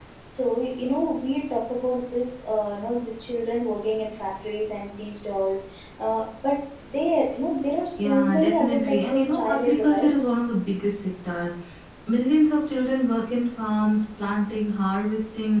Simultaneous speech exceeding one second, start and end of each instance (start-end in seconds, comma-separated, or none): 8.0-10.1